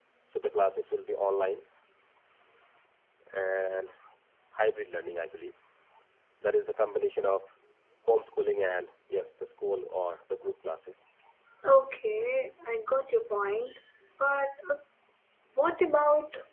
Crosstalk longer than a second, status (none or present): none